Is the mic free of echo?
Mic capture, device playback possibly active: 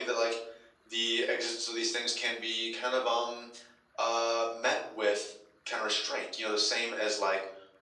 No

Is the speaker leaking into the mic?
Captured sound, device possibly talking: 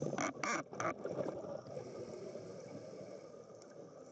No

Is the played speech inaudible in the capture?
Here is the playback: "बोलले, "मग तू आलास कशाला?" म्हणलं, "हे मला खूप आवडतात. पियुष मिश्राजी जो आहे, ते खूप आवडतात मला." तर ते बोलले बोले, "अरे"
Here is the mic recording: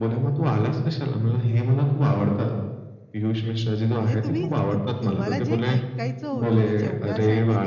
No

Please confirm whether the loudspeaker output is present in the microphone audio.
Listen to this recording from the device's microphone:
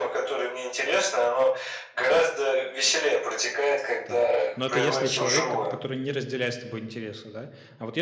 Yes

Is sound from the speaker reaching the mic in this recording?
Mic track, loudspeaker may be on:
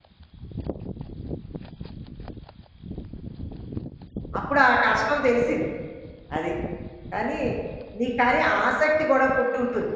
No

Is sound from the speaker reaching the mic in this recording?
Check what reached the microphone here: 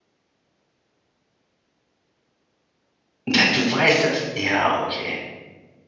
No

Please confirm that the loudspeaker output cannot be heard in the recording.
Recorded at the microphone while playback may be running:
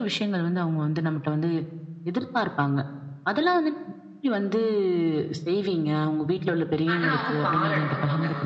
No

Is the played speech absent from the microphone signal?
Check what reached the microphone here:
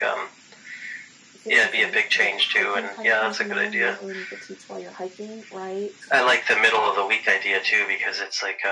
No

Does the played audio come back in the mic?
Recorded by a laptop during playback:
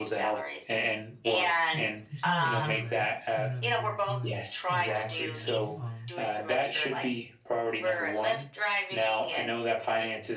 Yes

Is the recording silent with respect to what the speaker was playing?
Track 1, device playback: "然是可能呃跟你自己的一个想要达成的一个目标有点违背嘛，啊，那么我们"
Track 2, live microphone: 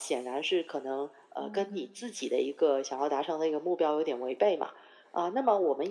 No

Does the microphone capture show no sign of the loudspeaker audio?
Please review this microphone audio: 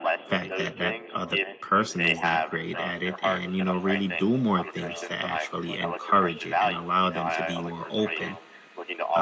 No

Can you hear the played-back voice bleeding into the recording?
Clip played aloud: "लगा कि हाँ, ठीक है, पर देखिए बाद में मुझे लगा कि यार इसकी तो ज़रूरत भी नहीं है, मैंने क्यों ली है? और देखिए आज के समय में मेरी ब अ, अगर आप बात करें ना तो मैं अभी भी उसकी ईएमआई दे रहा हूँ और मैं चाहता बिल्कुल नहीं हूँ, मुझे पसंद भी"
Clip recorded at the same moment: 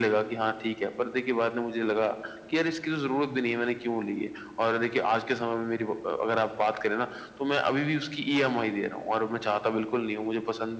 Yes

